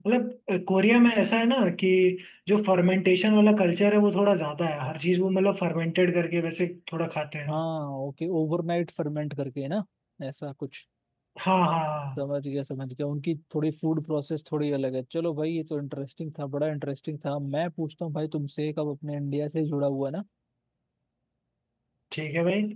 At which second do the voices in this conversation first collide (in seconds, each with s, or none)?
none